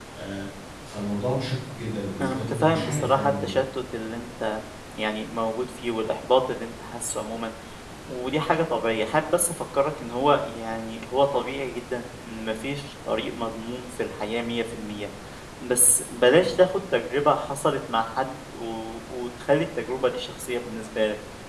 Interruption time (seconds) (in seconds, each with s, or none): 2.2 s